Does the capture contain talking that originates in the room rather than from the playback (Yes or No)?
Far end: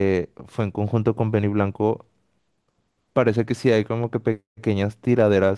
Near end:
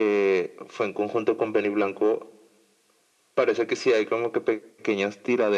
No